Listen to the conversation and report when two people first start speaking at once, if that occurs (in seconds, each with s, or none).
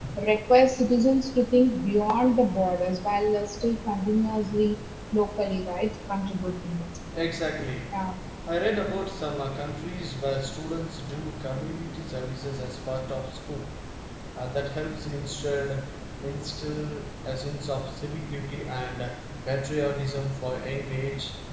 none